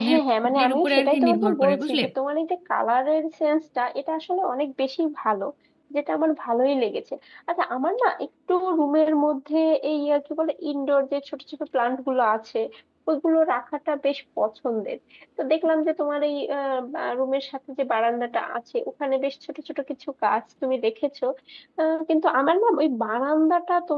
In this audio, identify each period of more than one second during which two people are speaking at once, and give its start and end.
0.6-2.0

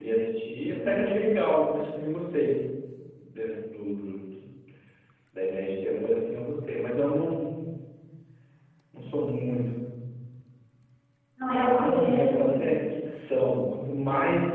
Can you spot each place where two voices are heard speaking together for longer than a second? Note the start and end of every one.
11.5-12.7

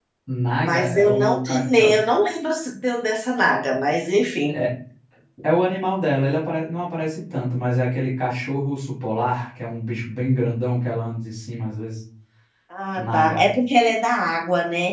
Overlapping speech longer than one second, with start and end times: 0.6-1.9

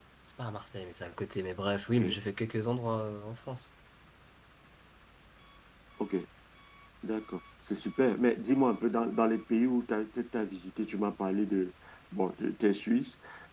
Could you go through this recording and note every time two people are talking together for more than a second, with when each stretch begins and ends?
none

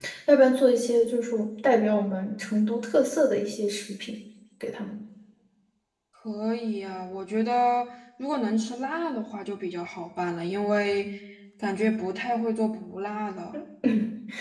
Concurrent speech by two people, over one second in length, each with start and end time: none

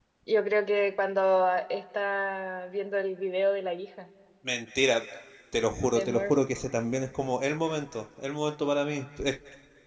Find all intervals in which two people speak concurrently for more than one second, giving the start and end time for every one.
none

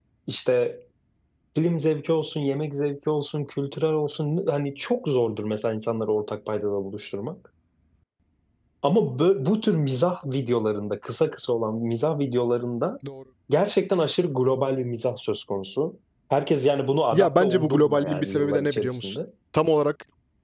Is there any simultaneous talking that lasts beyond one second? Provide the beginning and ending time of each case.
17.1-19.1

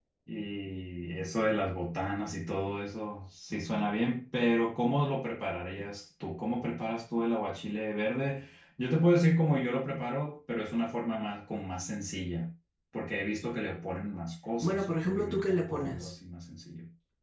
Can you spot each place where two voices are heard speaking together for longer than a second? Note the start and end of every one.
14.6-16.1

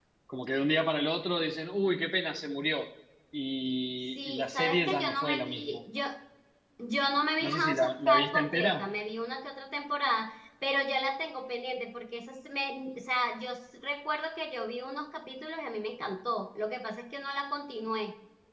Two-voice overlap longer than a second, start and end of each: 4.2-5.8, 7.5-8.8

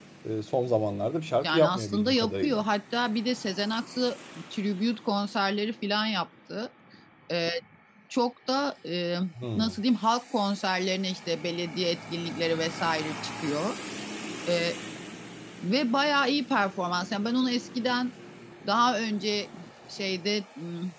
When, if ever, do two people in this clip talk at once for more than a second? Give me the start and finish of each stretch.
1.4-2.6

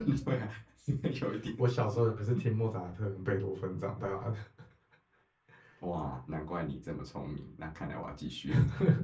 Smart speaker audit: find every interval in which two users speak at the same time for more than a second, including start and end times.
none

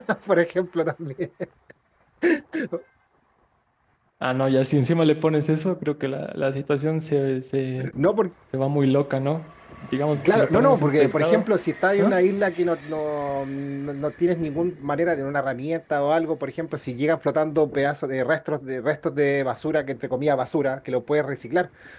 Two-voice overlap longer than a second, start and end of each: 10.2-11.4

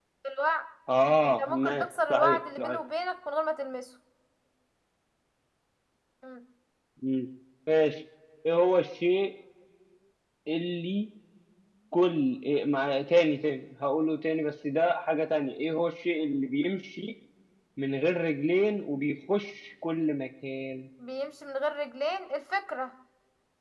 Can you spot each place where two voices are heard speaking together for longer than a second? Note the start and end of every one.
1.4-2.8

